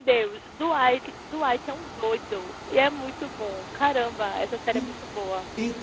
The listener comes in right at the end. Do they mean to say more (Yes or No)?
Yes